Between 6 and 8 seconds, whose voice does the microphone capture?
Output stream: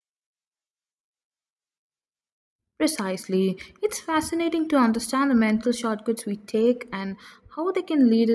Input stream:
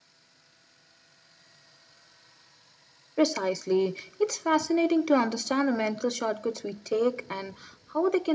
echo only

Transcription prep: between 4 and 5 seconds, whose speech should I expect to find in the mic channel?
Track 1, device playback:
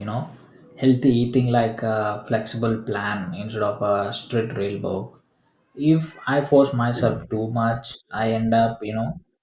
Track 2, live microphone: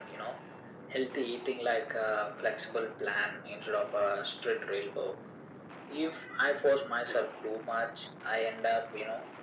echo only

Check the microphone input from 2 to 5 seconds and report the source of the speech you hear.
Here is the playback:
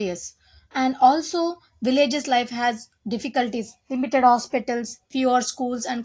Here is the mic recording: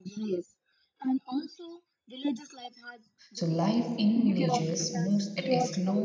both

